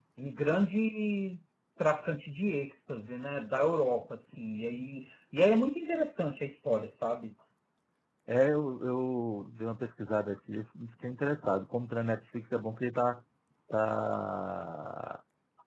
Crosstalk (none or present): none